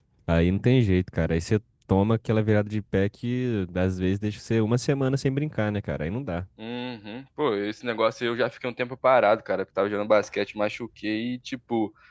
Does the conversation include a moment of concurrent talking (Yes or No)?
No